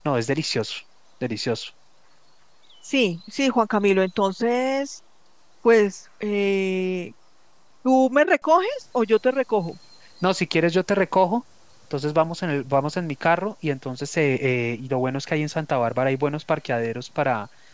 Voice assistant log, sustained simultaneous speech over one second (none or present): none